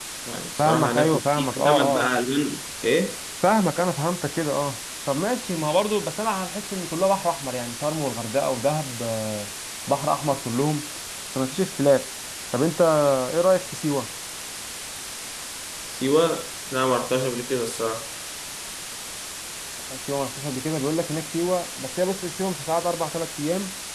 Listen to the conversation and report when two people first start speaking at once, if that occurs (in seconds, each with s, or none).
0.6 s